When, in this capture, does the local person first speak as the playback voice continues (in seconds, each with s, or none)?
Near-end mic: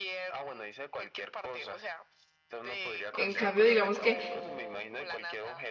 3.1 s